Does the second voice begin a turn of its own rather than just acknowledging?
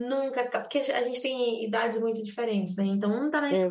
No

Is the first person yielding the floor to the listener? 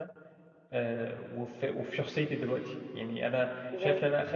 Yes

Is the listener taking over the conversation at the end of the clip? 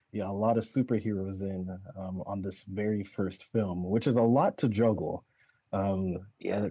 No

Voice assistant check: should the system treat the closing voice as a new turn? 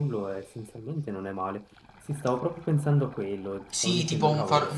Yes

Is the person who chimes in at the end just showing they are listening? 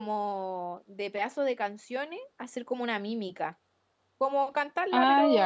No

